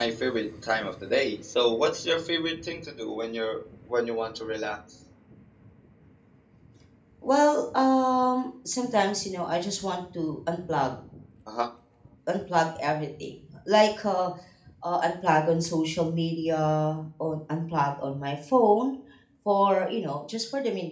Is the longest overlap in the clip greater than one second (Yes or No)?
No